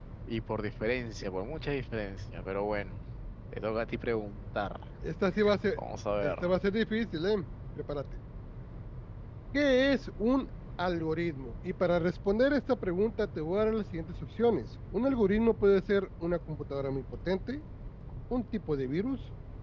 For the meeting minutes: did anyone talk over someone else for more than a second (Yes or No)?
No